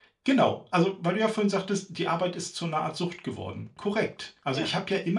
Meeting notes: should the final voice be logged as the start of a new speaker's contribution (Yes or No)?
No